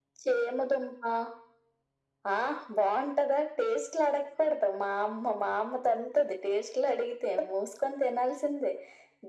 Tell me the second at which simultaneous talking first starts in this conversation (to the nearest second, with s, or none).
none